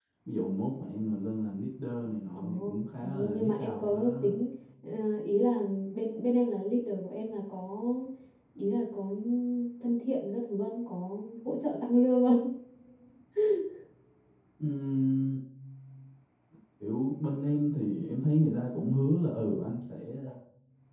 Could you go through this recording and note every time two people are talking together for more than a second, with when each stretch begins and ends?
2.4-4.3

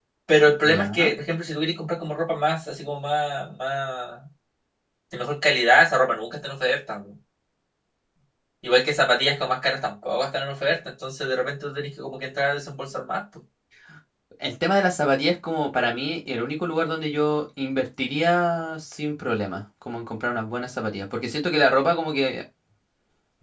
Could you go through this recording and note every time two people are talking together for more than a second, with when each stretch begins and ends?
none

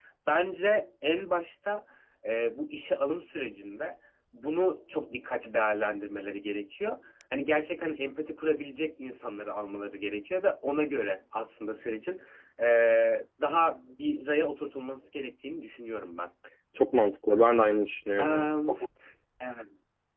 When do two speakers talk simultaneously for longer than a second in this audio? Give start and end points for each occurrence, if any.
none

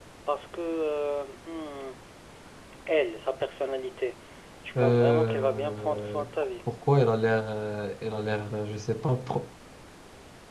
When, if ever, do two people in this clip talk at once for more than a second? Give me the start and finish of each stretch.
4.8-6.2

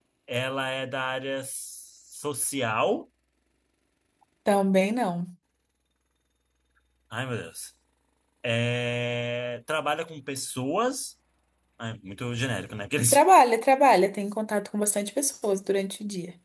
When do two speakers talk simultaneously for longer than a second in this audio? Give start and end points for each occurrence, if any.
none

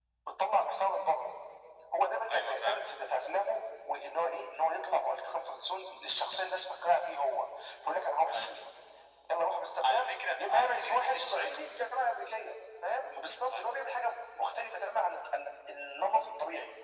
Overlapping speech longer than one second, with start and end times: 9.8-11.7

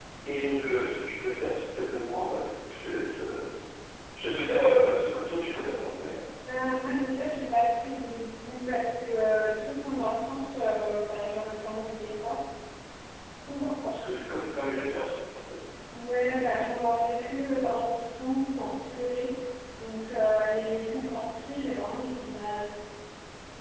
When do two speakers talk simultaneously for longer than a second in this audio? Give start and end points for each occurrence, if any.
none

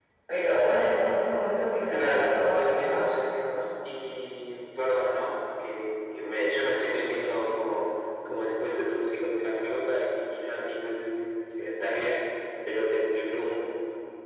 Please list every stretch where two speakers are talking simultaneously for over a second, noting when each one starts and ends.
1.9-3.3

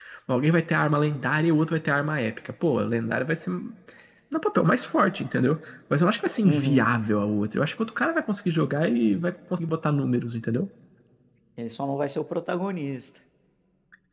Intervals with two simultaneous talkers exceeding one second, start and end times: none

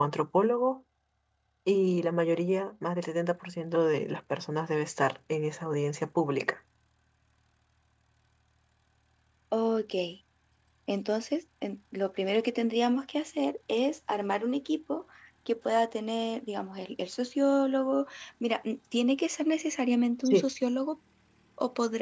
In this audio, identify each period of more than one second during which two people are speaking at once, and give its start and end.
none

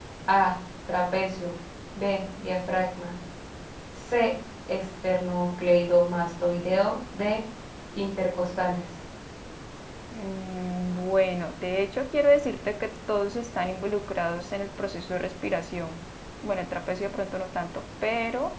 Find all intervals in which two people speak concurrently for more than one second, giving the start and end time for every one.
none

